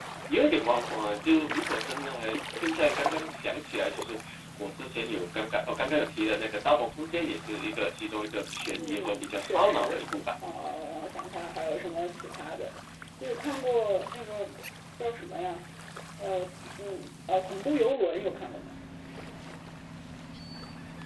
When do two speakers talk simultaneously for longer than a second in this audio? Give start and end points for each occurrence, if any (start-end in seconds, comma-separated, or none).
8.8-10.1